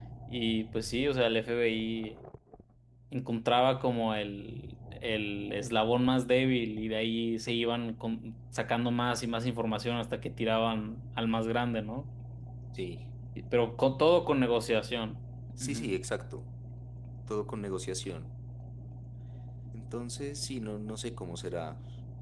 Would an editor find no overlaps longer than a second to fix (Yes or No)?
Yes